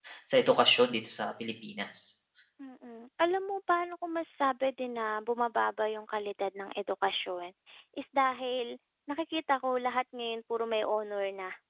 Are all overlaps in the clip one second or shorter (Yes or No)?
Yes